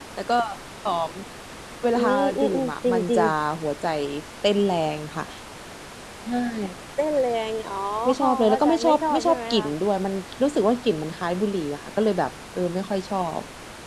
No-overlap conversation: No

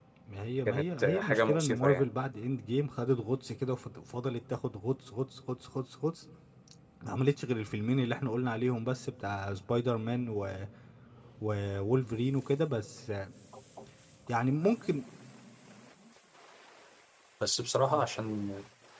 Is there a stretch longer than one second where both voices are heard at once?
Yes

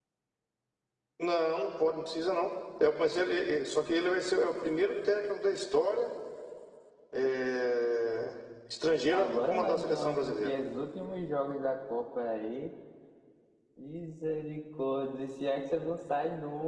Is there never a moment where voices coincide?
No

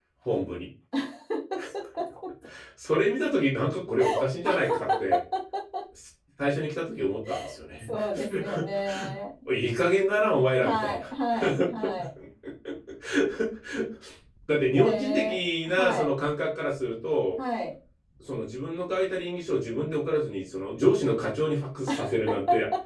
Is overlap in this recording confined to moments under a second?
No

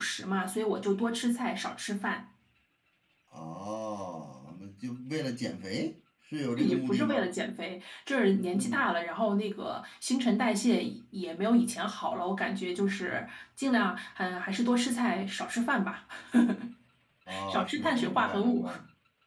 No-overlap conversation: No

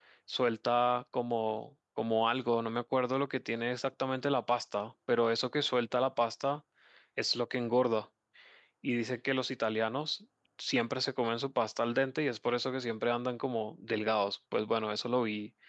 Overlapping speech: No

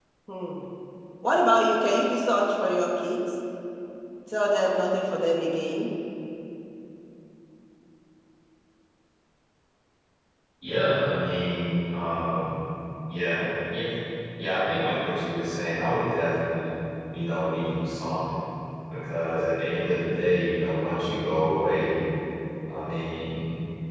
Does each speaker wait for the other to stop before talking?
Yes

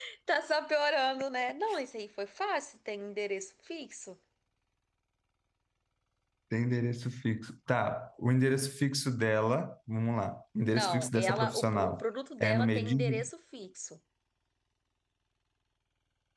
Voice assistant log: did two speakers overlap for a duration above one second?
Yes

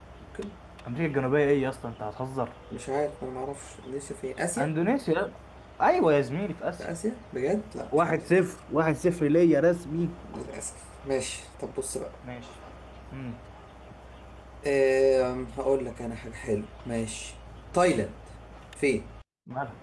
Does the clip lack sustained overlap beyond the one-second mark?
Yes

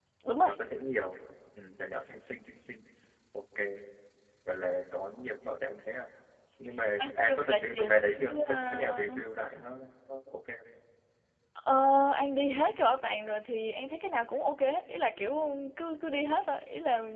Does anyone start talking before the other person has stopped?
Yes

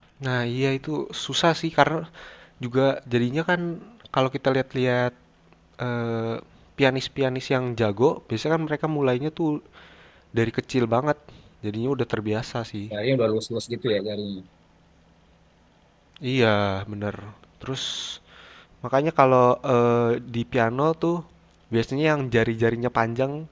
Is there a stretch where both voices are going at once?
No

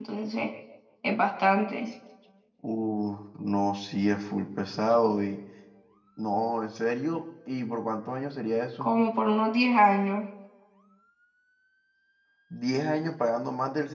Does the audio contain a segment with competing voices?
No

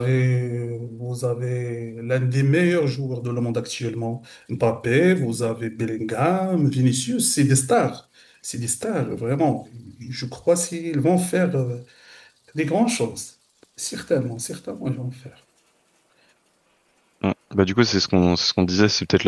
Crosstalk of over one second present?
No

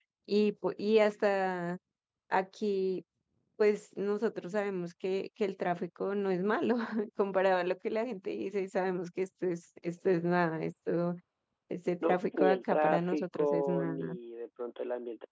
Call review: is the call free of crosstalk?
No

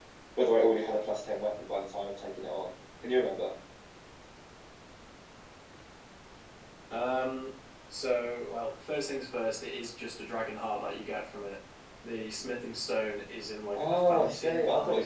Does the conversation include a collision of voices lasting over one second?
Yes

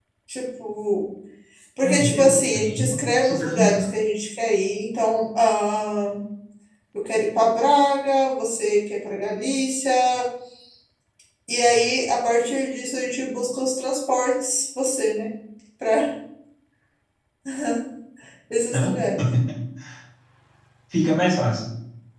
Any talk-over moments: Yes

